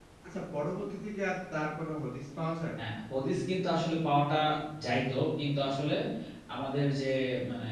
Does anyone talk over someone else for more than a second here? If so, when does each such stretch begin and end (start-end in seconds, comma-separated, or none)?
none